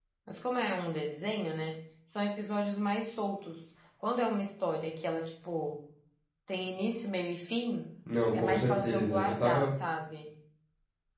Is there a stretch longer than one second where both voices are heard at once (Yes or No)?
Yes